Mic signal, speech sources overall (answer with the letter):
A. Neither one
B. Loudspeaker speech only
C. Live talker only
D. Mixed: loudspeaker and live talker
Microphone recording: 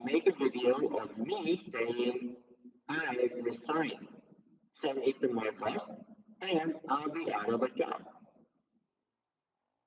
B